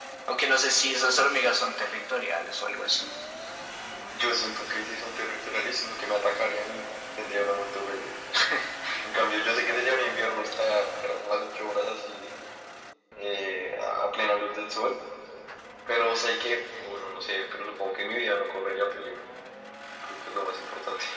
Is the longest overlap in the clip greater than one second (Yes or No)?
No